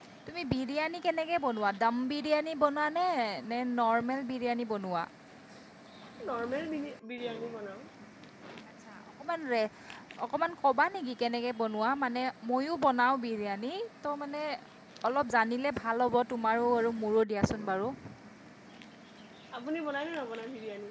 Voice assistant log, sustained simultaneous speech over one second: none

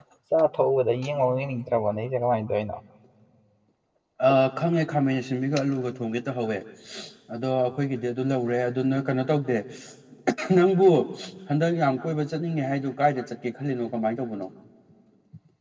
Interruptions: none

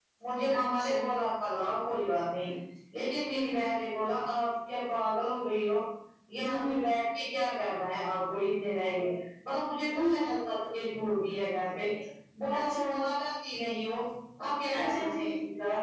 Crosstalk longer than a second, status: none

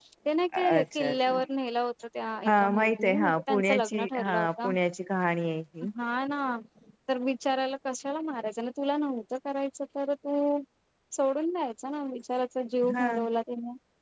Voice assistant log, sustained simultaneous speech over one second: present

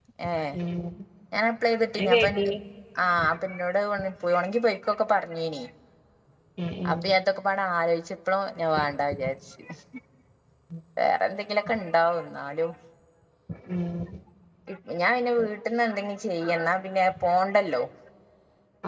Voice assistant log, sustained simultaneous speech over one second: none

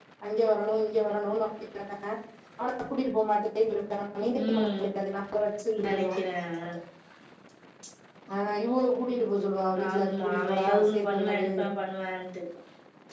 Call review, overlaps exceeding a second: present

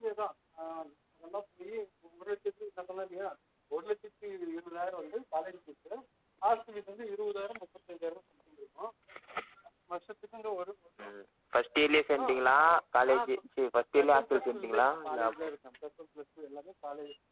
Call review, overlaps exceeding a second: present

